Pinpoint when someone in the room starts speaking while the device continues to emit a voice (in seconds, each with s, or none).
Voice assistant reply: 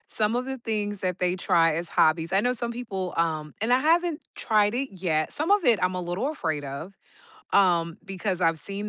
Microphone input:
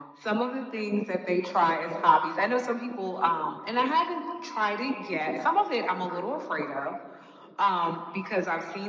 none